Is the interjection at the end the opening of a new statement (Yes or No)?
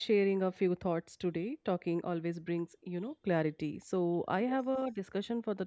No